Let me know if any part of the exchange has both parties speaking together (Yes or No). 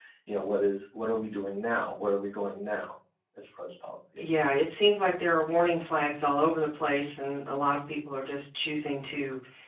No